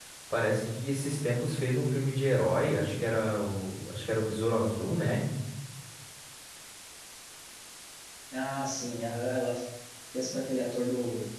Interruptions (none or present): none